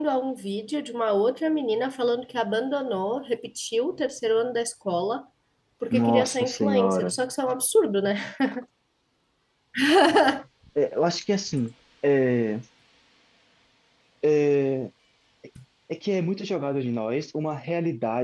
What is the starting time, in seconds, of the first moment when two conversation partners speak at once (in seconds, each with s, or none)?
5.9 s